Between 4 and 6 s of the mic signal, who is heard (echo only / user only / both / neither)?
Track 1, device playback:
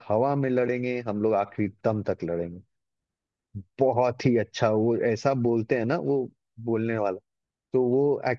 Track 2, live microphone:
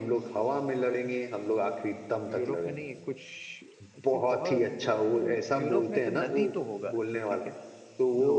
both